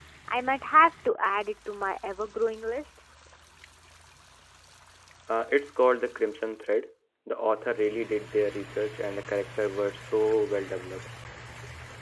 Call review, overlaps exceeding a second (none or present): none